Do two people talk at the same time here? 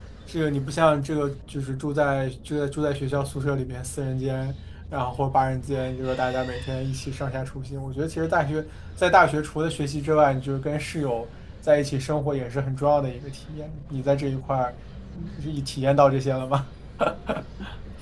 No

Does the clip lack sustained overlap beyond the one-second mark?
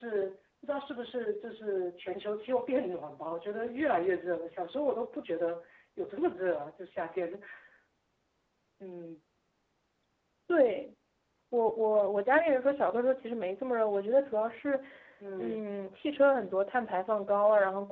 Yes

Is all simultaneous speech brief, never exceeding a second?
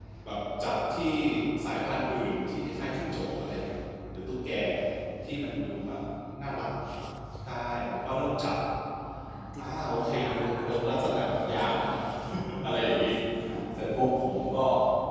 No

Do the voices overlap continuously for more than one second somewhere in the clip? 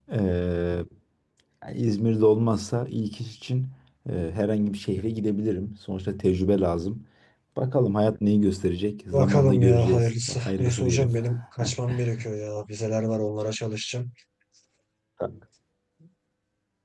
Yes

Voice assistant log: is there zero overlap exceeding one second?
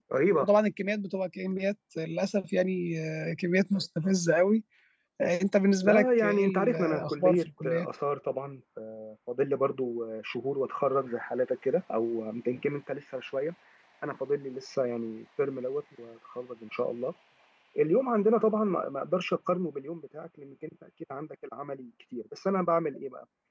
No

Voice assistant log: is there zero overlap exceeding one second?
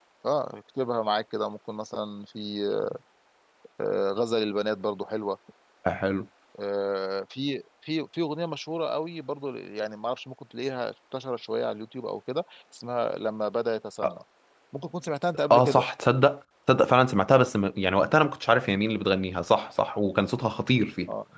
Yes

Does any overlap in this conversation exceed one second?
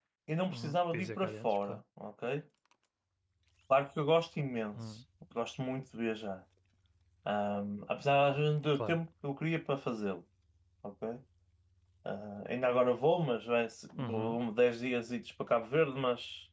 Yes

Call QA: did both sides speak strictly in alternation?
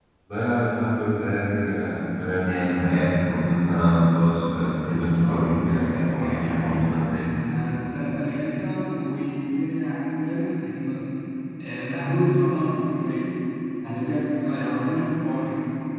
No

